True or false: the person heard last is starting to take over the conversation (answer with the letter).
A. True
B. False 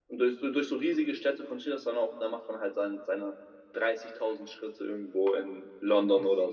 A